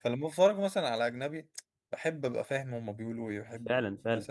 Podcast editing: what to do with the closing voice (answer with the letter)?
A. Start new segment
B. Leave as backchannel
A